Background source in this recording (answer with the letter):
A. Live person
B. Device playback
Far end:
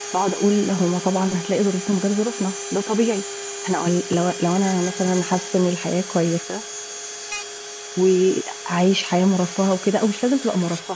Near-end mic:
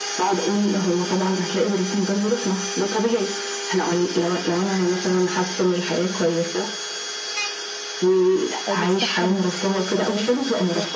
A